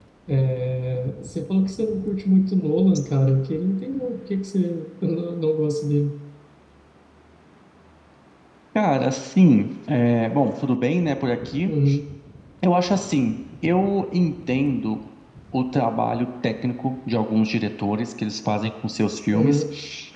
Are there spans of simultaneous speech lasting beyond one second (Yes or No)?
No